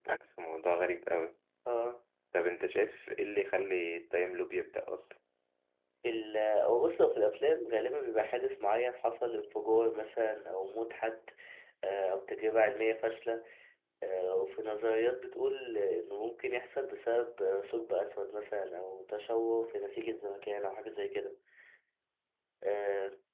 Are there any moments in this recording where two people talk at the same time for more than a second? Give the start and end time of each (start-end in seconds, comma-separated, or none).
none